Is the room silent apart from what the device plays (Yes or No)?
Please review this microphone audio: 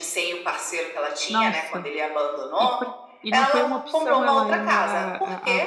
No